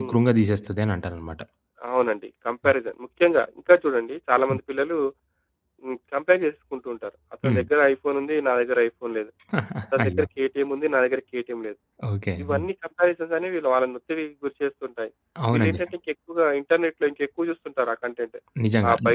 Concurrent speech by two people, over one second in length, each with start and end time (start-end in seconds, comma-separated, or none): none